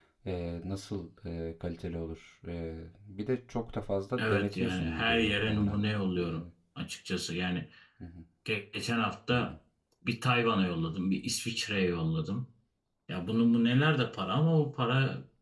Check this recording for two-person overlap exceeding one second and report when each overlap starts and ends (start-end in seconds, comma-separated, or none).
4.2-5.8